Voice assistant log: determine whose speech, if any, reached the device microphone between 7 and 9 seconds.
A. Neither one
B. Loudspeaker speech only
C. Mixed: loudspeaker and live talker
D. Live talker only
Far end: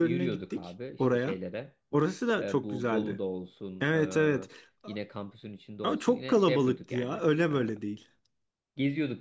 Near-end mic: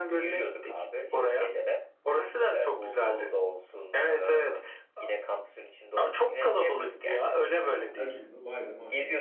C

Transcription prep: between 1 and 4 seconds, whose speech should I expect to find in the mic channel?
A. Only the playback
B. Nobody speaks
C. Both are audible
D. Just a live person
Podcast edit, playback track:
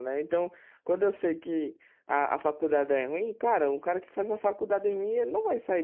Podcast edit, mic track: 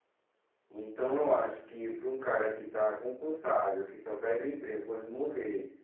D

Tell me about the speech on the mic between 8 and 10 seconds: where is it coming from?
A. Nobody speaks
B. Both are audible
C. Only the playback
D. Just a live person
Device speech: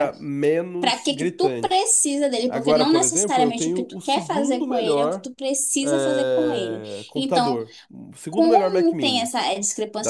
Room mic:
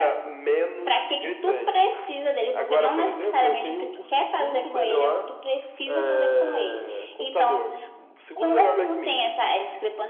C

